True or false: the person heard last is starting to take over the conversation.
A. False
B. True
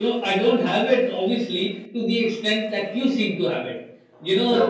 B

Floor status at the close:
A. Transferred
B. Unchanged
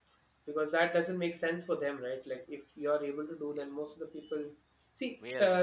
B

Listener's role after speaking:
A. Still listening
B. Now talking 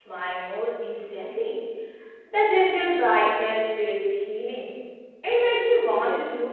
B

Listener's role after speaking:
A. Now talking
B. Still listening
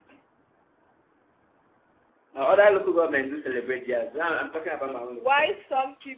A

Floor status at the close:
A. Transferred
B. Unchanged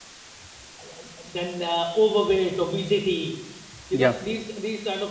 B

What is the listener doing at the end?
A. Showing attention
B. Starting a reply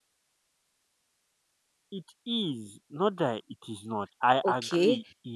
B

